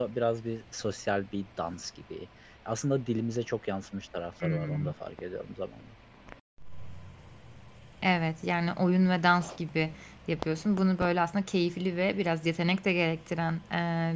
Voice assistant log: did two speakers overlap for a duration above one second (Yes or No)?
No